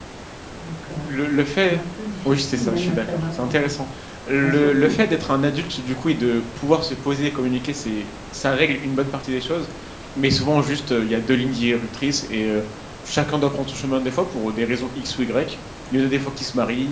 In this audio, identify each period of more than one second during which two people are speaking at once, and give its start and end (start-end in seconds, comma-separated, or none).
2.3-3.7